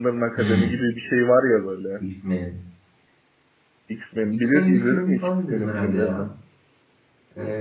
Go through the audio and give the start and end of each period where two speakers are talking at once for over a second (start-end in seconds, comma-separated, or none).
4.3-6.2